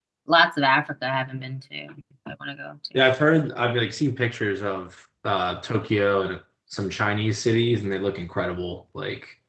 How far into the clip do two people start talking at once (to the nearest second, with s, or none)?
none